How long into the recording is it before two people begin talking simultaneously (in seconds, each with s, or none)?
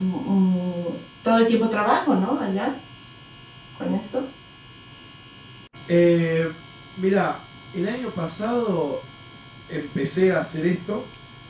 none